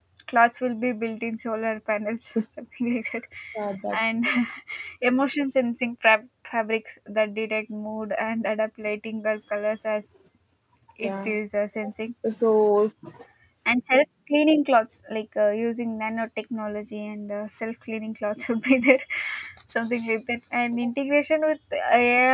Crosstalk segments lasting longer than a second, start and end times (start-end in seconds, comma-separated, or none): none